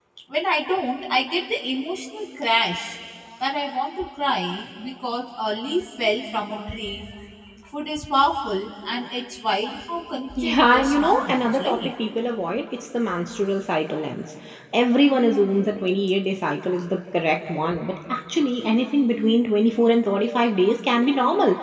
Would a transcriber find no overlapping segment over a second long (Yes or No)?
No